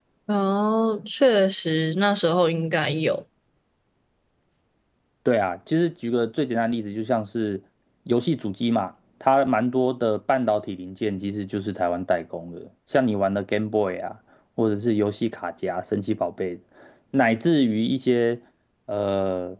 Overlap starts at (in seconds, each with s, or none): none